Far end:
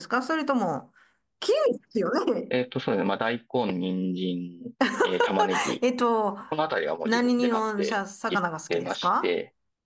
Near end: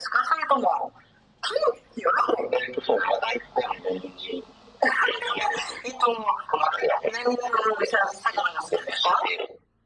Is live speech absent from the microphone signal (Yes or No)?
Yes